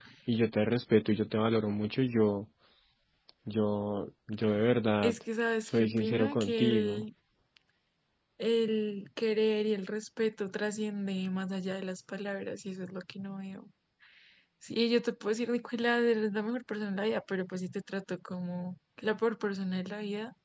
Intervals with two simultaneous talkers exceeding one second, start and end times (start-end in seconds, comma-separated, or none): 5.7-7.0